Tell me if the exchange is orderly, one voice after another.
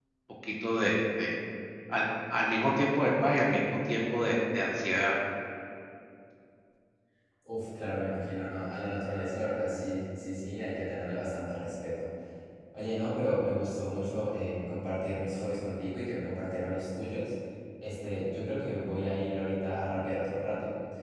Yes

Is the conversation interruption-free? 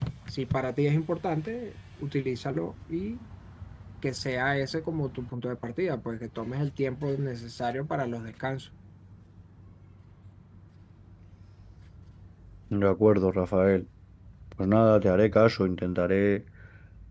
Yes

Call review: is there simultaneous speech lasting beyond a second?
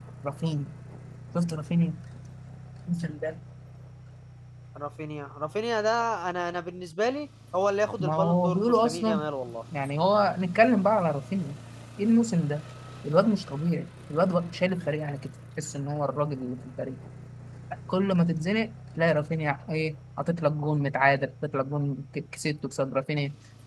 Yes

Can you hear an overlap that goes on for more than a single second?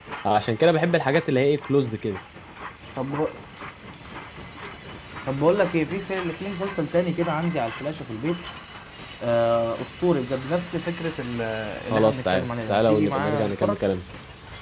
Yes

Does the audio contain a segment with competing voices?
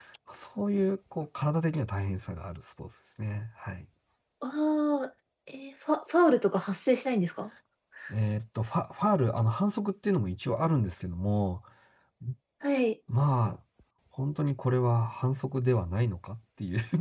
No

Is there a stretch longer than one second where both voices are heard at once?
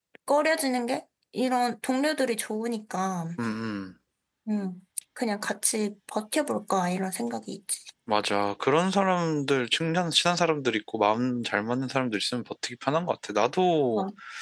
No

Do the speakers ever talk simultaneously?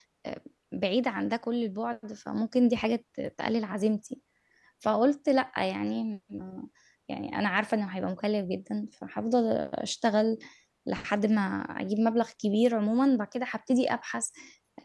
No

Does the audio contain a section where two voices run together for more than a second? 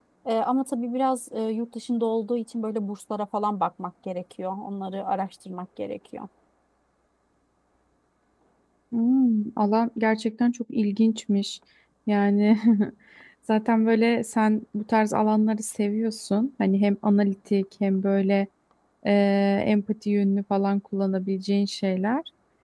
No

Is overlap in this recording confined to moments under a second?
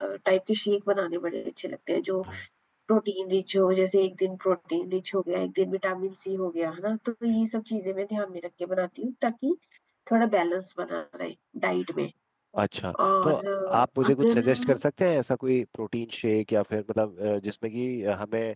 No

